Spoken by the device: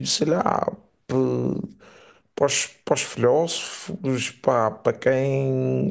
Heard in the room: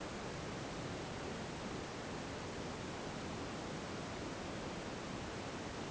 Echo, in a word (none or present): none